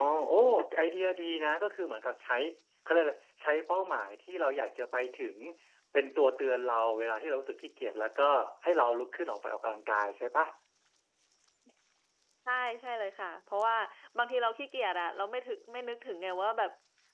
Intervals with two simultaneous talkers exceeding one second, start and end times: none

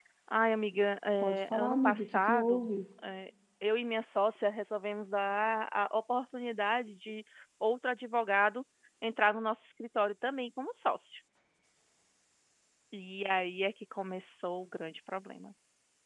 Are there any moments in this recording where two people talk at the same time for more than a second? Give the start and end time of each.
1.2-2.7

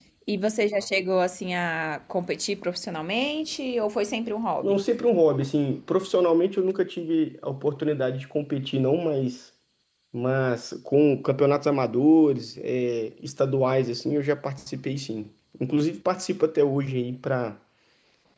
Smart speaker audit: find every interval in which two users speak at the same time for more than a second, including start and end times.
none

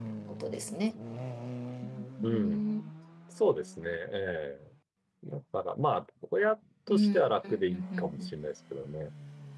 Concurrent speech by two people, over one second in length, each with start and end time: 6.9-8.3

